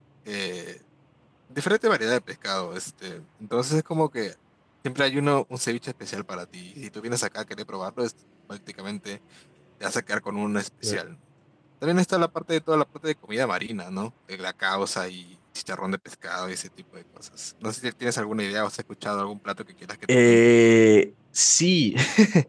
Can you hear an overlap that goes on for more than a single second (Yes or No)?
No